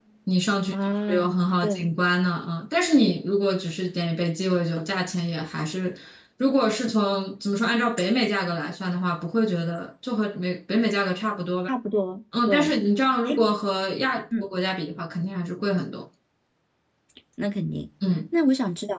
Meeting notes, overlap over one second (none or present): none